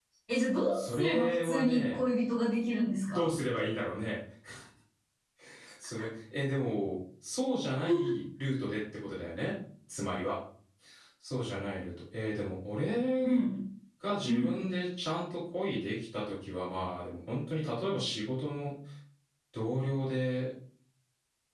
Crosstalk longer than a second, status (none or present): present